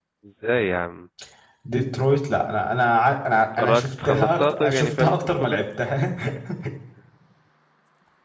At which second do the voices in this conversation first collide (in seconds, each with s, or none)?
3.5 s